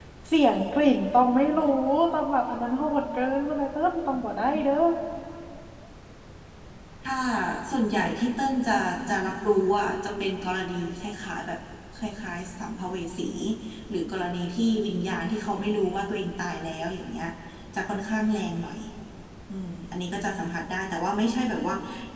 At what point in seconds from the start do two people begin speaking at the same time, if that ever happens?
none

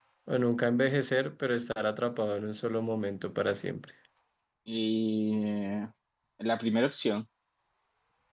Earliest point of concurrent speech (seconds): none

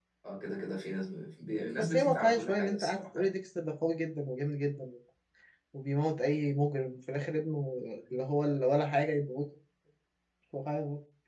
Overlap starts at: 1.5 s

